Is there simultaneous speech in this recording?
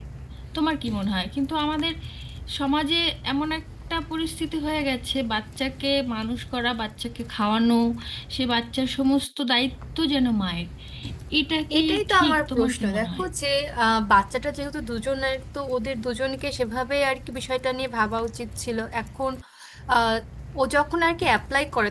Yes, from 11.8 s

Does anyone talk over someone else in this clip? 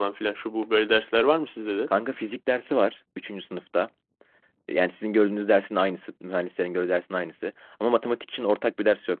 No

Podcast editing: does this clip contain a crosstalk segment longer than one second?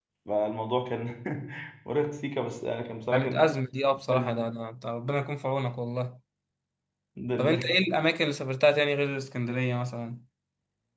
No

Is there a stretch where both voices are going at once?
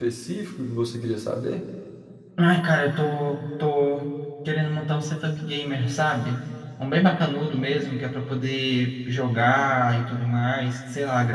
No

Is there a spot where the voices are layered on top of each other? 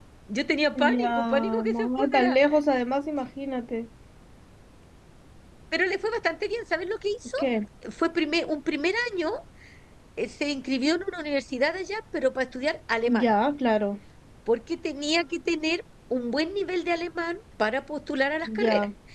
Yes, from 0.8 s

